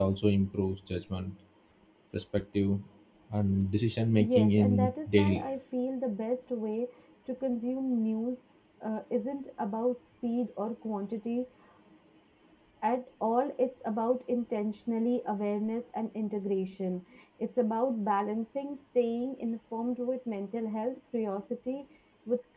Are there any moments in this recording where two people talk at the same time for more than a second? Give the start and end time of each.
4.2-5.4

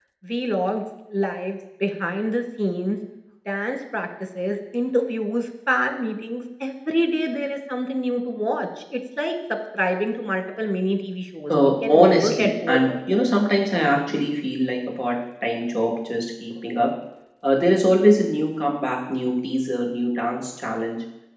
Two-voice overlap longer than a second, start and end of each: 11.5-13.3

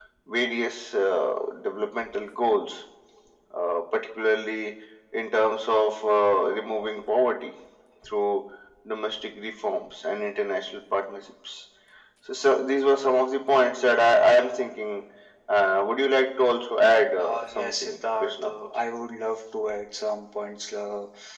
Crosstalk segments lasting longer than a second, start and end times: 17.2-18.5

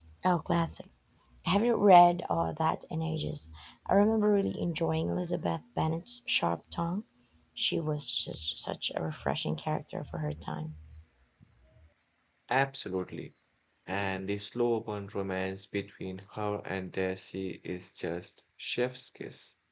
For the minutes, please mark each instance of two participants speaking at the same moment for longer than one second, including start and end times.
none

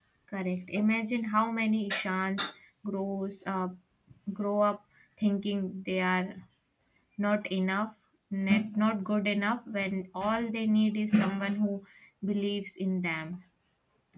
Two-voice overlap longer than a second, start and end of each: none

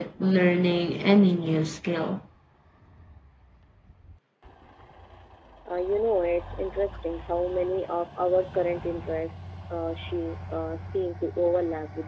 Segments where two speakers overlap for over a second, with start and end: none

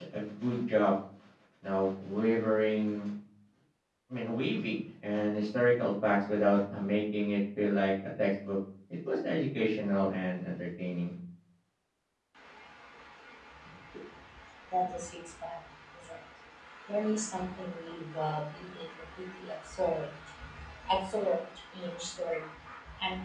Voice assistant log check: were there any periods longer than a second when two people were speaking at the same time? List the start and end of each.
none

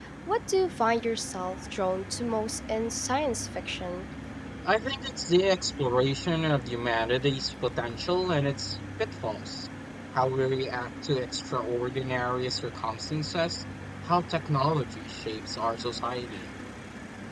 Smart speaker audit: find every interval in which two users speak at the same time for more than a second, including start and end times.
none

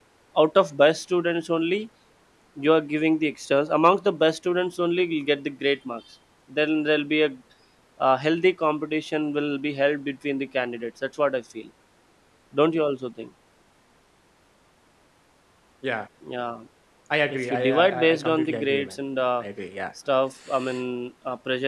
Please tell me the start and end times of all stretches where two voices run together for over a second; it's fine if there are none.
17.3-18.9

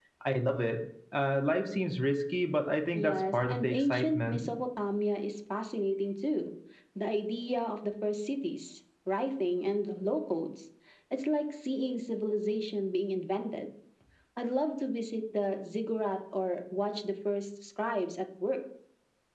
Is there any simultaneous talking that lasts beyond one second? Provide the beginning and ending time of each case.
2.9-4.5

